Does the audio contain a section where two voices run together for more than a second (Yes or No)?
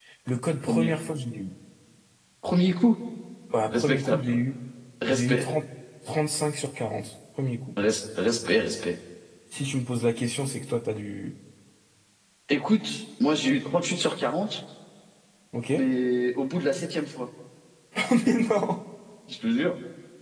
No